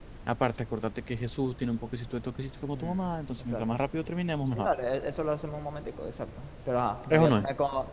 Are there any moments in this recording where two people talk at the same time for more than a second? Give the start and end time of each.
none

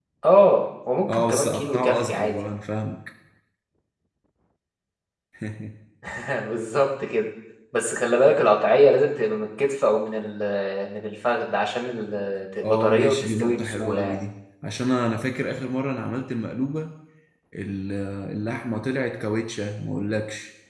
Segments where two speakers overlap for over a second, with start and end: 1.1-2.3, 12.6-14.2

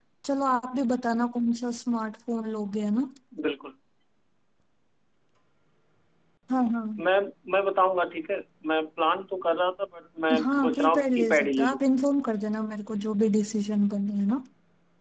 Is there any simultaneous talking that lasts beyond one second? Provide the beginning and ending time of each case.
10.4-11.8

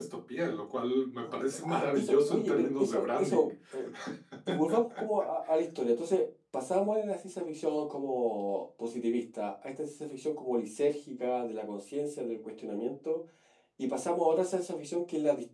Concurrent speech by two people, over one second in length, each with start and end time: 1.6-3.5

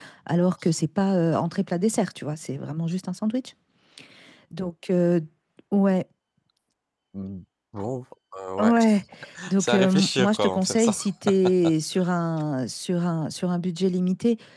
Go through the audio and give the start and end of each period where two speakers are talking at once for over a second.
9.6-11.0

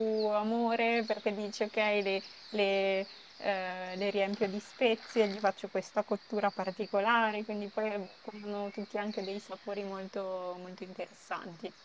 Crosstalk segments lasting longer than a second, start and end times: none

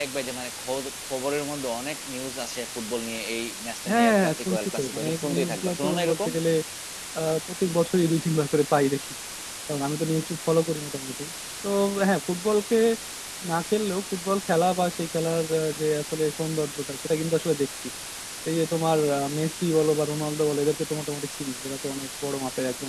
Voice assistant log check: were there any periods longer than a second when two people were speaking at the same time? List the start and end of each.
3.9-6.3

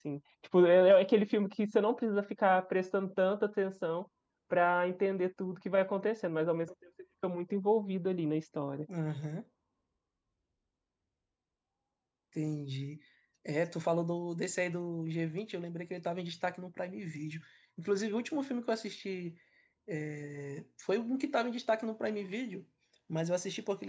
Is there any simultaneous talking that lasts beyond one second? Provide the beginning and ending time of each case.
none

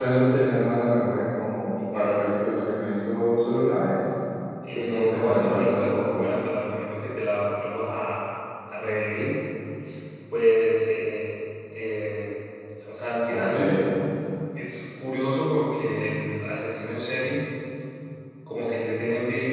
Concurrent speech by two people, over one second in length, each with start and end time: 4.7-6.3

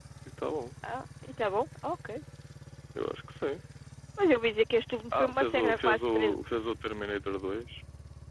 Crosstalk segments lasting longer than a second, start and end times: 5.1-6.4

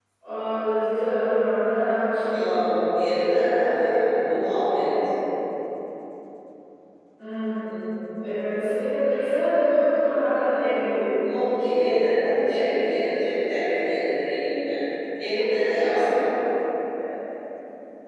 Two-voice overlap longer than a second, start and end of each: none

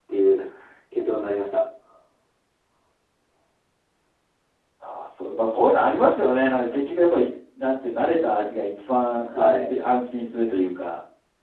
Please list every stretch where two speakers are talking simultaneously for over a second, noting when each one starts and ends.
none

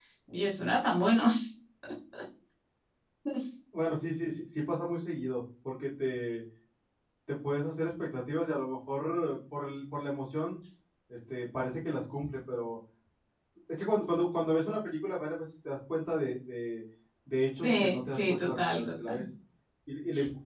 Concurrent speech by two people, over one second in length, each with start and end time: 17.6-19.2

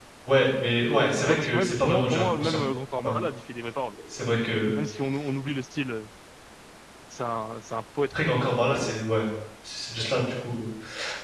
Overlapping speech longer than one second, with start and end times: 1.2-2.6

